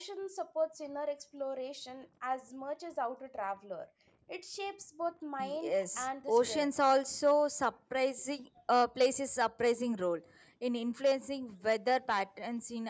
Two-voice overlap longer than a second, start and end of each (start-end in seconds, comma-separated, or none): 5.4-6.7